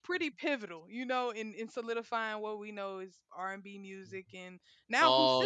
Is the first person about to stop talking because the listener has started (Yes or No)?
No